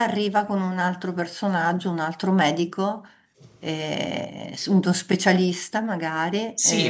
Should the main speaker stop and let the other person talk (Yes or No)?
Yes